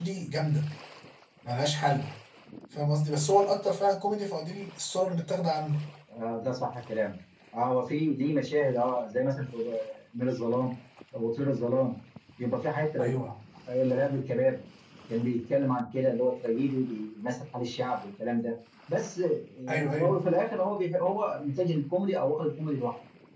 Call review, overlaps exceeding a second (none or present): none